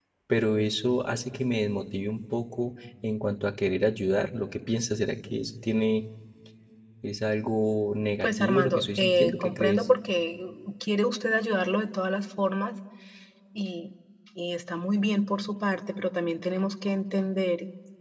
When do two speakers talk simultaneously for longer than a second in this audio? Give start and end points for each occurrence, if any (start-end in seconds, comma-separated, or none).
8.2-9.9